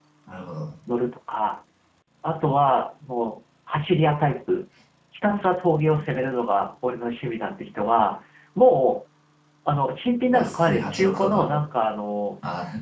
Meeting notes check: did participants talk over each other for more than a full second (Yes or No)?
Yes